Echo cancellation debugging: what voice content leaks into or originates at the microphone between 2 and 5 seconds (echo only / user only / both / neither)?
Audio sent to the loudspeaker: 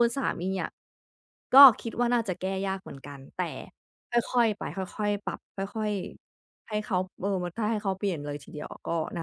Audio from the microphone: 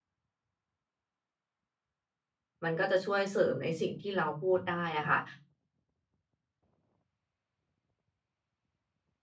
user only